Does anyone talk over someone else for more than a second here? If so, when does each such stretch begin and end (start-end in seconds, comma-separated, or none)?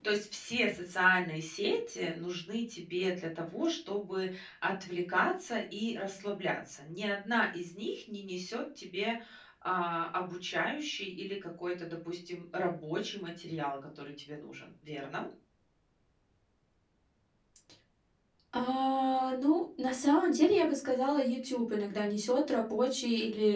none